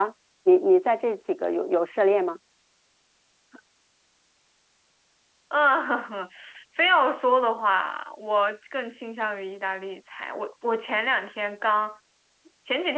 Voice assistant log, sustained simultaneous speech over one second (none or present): none